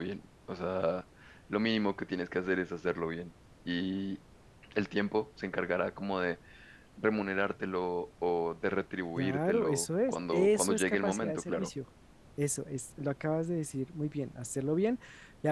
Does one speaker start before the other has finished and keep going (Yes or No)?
Yes